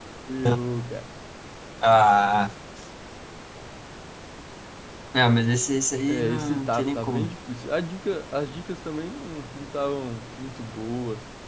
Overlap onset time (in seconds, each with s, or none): 6.1 s